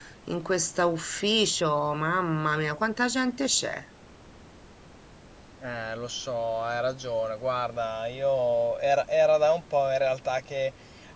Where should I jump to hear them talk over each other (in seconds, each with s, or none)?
none